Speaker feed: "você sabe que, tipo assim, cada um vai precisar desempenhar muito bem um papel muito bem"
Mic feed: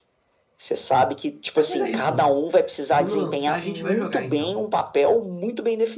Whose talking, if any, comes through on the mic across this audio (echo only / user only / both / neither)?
both